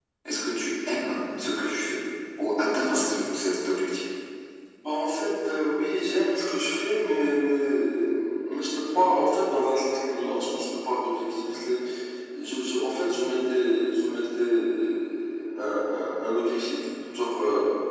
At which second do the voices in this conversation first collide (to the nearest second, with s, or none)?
none